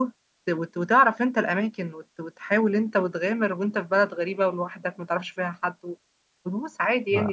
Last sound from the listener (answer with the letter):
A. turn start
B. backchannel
B